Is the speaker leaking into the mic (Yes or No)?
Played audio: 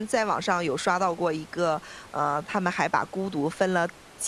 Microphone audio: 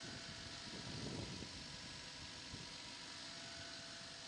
No